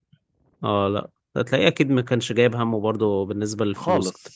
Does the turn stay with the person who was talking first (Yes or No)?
No